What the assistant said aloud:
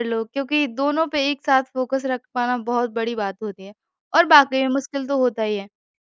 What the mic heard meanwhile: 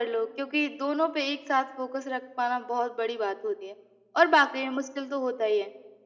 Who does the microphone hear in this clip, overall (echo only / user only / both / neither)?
echo only